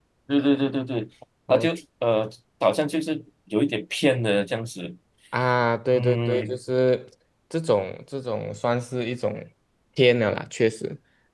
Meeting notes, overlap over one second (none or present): none